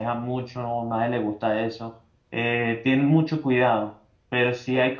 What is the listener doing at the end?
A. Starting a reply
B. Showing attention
B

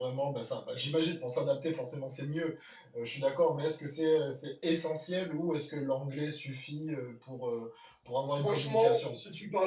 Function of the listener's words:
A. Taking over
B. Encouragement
A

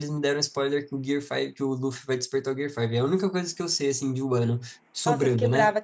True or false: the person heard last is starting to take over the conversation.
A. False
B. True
B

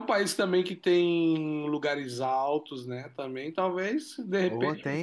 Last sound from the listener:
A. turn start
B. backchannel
B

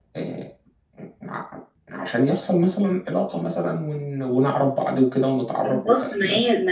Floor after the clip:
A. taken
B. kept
A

